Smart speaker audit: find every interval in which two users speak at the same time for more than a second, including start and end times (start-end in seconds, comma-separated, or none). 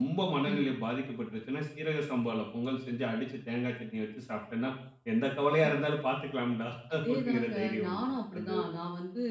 6.9-8.6